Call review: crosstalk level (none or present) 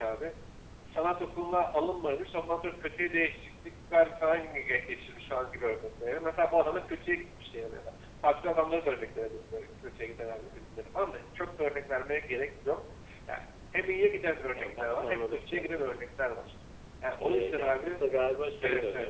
present